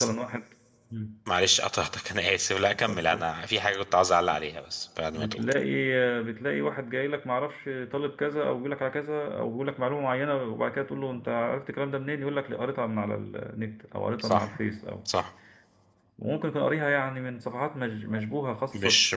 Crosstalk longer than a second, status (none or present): none